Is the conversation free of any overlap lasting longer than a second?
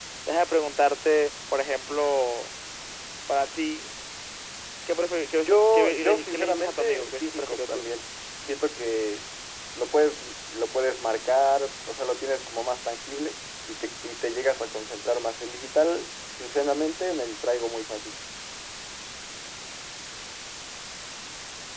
No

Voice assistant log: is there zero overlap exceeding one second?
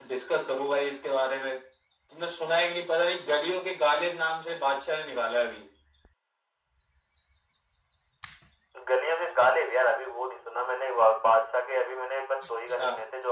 Yes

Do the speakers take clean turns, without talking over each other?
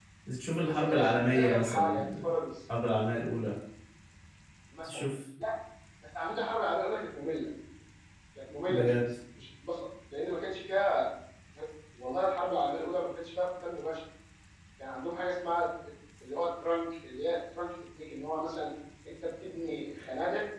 No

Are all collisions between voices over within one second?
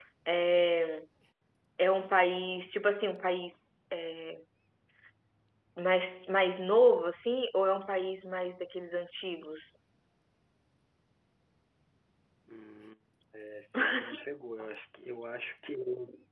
Yes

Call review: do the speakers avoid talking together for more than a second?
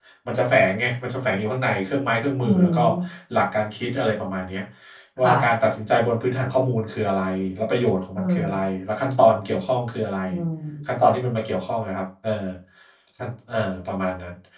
Yes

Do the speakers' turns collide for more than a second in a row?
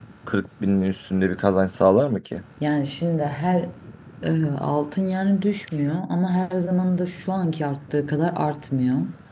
No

